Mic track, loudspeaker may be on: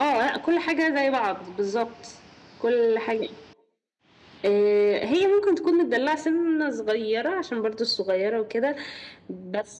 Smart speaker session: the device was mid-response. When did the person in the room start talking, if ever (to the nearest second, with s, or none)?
none